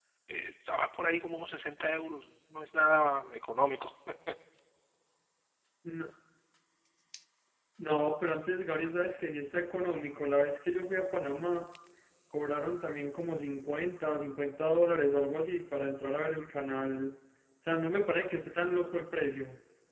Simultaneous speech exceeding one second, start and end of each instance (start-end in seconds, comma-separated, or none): none